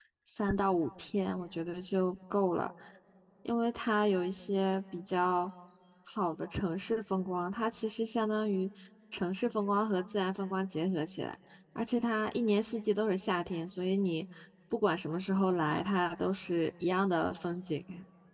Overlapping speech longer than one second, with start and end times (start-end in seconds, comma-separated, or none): none